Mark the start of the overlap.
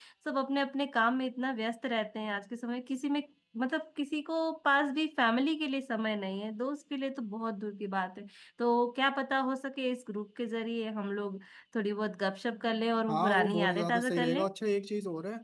13.1 s

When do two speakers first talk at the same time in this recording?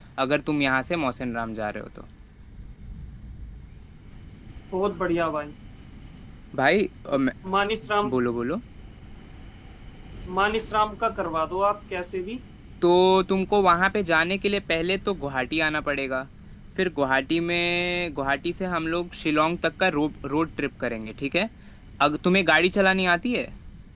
none

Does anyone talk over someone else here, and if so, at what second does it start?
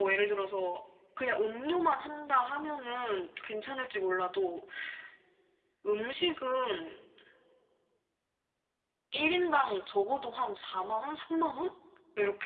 none

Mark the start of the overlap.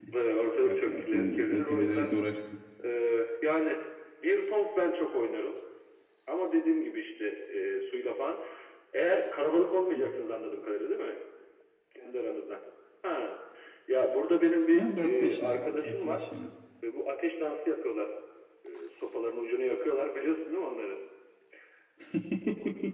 0.6 s

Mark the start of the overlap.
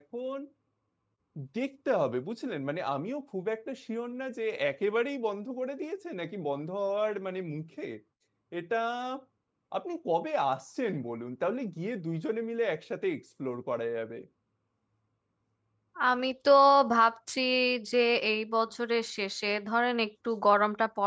none

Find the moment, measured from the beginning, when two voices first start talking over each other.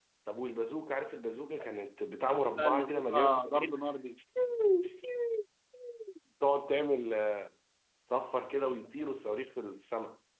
2.6 s

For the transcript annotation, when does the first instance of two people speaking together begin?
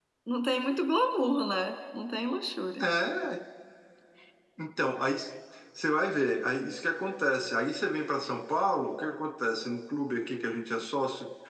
none

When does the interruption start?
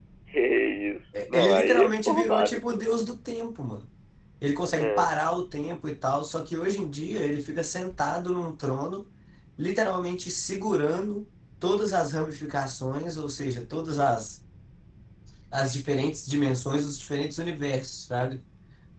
1.3 s

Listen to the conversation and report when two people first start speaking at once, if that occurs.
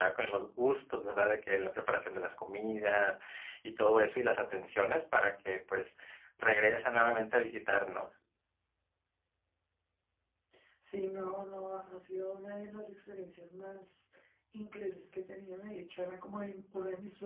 none

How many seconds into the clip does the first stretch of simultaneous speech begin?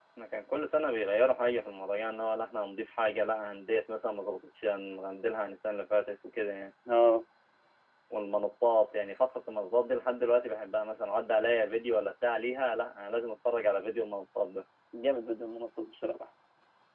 none

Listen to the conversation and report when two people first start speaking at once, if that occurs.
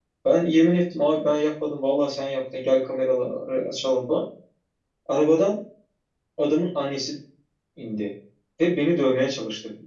none

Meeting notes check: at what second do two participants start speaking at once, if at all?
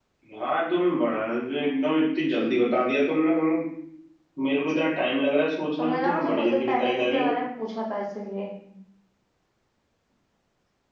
5.8 s

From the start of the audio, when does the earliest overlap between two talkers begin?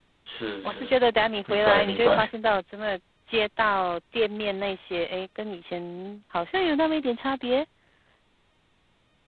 0.6 s

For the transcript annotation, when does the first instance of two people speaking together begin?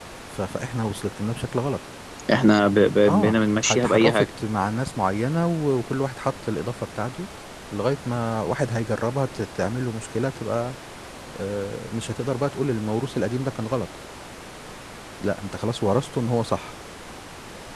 3.0 s

